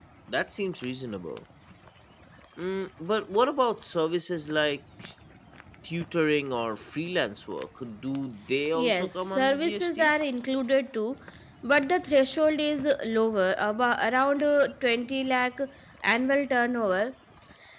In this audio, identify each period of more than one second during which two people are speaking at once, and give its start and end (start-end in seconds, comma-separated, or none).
8.7-10.1